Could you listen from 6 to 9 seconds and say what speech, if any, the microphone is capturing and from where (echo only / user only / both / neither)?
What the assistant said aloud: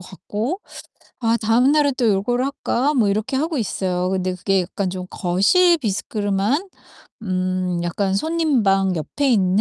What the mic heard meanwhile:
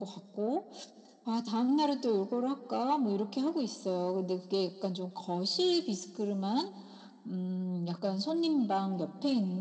echo only